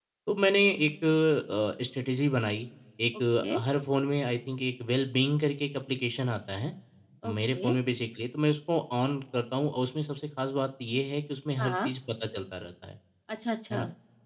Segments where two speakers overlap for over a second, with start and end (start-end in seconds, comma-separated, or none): none